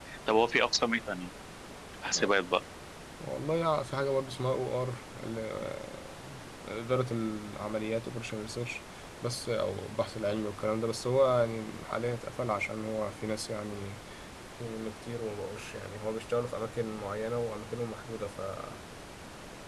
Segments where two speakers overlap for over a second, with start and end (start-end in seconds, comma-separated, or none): none